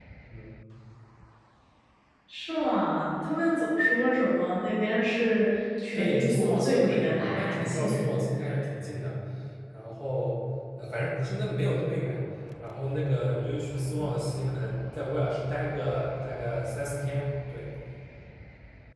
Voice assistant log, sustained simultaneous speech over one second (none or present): present